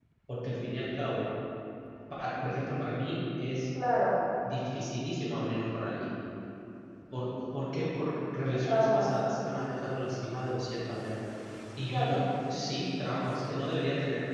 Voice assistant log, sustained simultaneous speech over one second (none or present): none